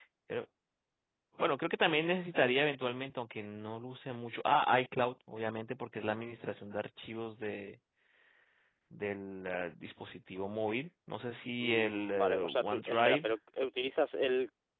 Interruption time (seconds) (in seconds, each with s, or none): 11.6 s